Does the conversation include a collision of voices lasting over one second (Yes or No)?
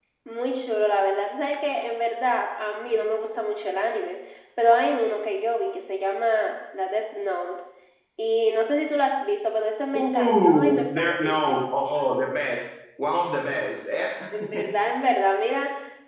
Yes